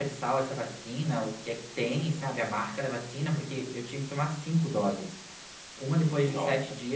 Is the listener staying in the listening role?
Yes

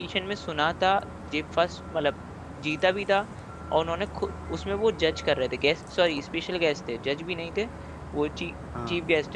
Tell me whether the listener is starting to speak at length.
No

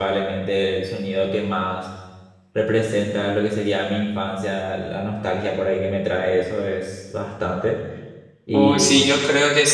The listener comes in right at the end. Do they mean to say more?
Yes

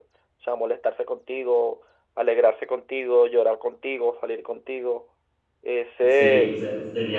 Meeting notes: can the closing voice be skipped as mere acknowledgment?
No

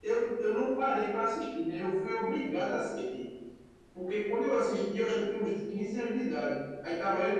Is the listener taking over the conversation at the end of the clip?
No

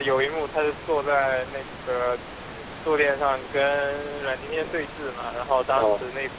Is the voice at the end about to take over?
No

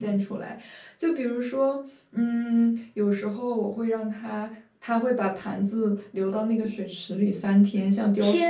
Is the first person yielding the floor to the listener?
Yes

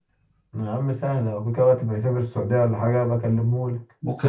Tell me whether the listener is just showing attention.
No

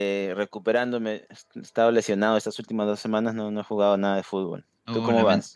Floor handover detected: Yes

